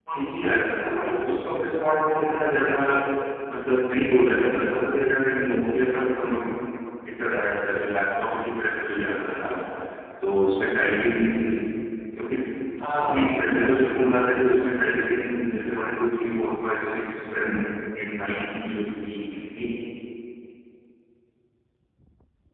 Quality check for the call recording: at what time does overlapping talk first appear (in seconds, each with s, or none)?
12.9 s